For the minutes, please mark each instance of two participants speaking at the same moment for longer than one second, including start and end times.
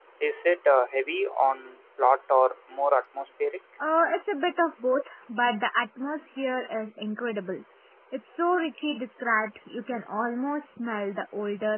none

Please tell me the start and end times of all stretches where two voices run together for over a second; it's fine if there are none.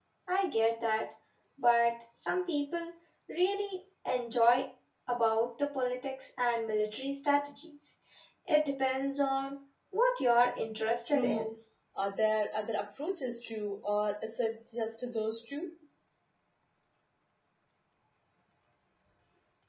none

